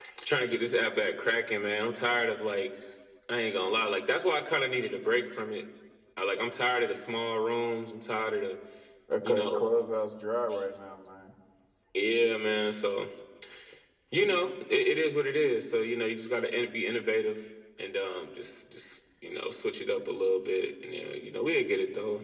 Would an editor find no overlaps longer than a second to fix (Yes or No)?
Yes